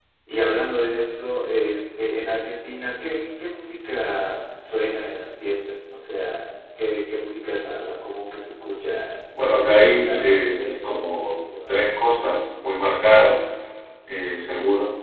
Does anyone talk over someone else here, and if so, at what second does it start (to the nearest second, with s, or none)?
9 s